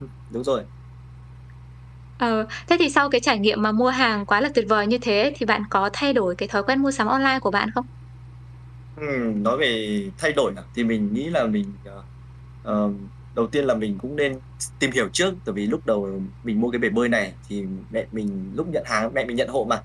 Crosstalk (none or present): none